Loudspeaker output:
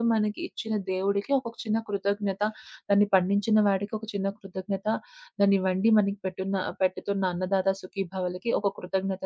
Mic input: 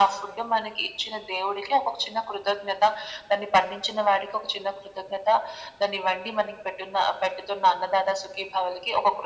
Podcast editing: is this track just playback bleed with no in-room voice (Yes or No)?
Yes